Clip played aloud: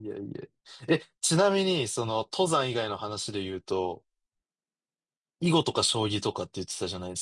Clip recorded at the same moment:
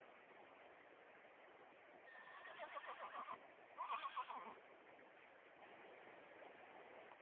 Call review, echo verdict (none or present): none